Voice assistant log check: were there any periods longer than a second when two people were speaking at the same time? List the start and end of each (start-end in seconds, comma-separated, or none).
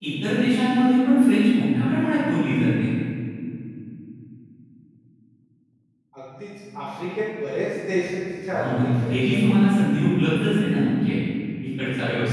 8.5-9.8